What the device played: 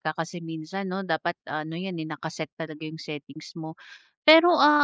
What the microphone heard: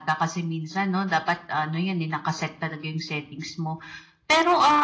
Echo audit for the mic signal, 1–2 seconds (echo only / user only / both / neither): echo only